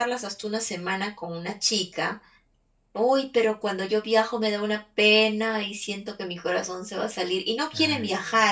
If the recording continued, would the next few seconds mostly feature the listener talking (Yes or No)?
No